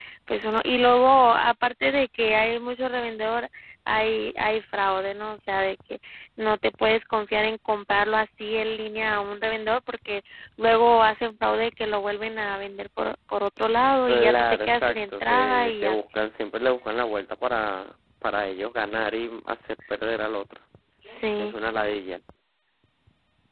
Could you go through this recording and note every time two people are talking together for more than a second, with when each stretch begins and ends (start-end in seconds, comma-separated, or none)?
14.1-16.3